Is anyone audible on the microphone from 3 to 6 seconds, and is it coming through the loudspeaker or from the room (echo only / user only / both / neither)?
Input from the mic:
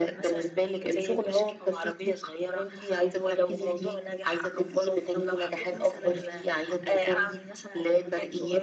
echo only